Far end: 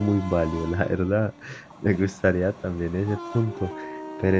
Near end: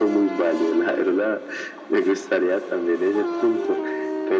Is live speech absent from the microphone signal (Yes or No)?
Yes